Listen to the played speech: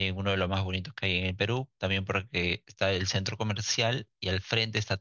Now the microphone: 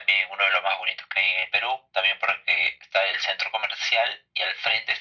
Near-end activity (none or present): none